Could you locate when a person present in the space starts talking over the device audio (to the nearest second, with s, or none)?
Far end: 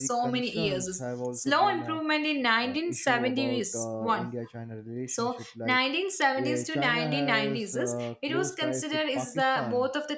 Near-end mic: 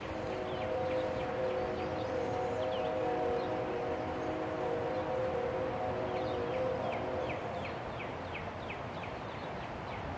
none